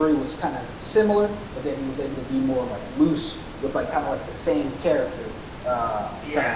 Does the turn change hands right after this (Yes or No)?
No